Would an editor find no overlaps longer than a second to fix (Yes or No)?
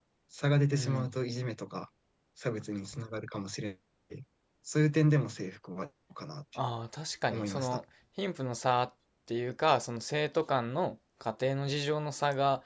Yes